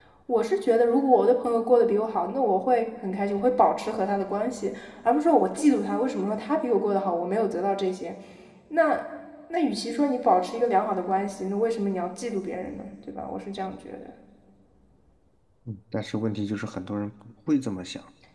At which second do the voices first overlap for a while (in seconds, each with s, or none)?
none